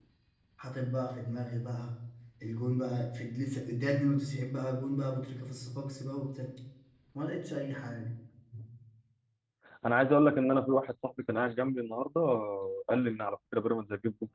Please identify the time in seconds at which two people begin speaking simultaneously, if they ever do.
none

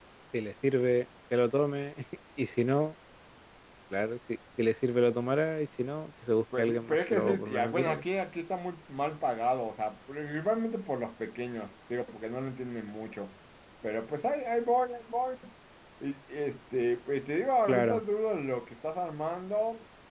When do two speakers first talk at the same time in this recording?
6.6 s

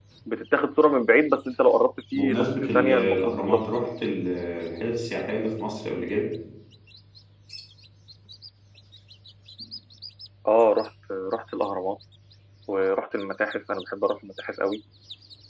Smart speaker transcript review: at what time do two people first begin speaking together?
2.1 s

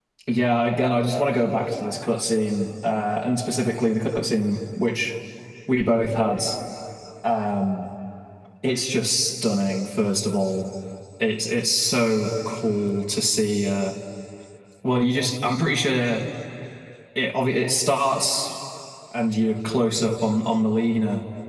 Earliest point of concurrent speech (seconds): none

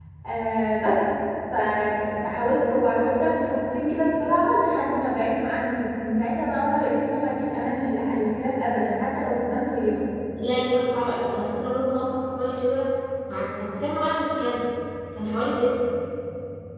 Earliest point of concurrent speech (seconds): none

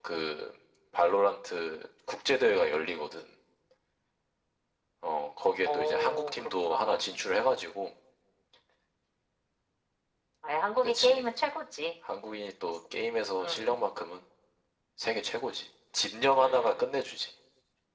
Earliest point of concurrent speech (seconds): 5.7 s

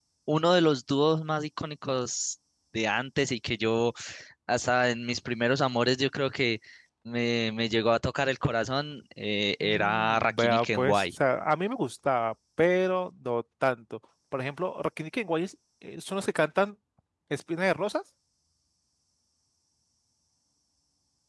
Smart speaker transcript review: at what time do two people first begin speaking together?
9.6 s

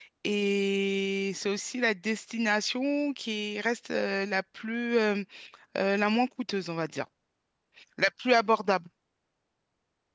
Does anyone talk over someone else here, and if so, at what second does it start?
none

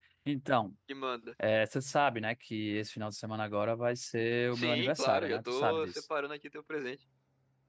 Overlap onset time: 4.5 s

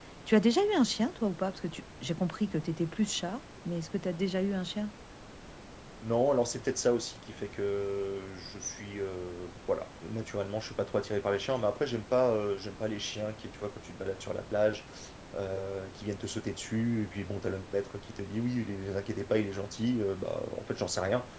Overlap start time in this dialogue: none

